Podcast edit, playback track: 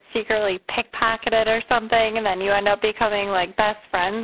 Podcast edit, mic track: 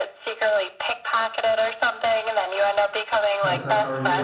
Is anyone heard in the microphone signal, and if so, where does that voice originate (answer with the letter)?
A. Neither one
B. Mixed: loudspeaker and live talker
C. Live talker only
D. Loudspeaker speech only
B